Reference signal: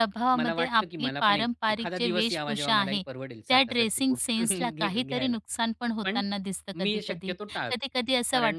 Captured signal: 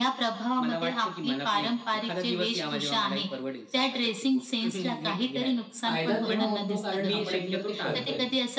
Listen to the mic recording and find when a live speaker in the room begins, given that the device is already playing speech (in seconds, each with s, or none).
5.8 s